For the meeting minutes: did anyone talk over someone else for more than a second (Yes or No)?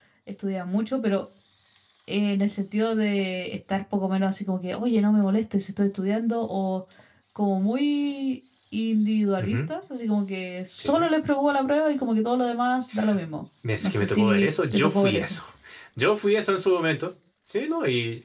Yes